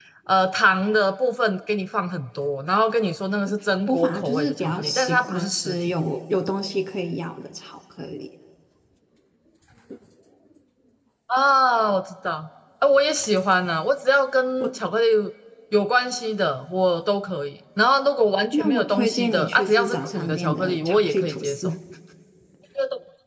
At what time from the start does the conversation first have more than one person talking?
3.9 s

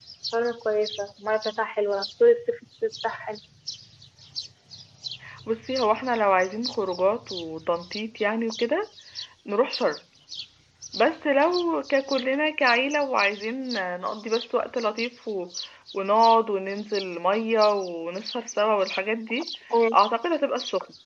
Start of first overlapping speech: none

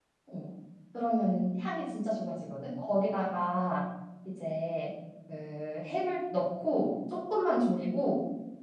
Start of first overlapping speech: none

